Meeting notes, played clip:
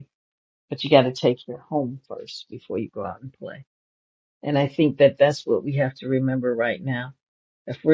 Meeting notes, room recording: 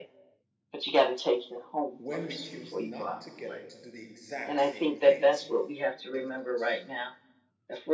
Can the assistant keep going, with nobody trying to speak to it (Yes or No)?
No